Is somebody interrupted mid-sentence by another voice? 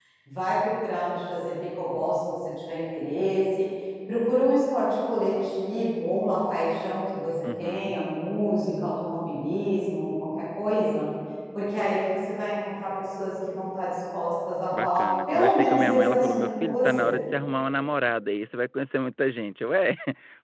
Yes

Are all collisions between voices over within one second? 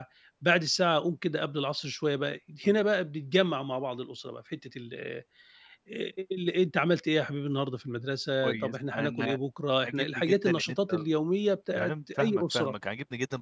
No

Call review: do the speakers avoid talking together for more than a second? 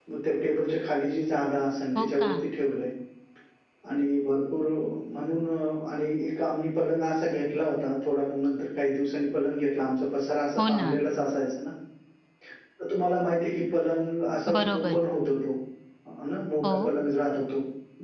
Yes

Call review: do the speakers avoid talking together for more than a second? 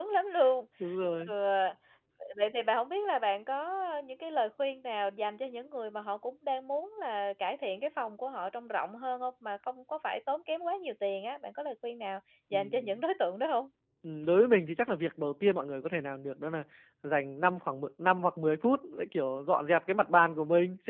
Yes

